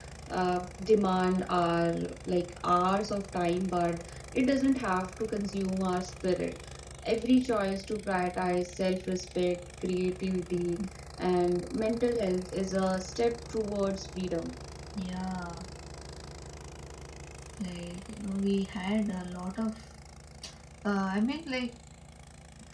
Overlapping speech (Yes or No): No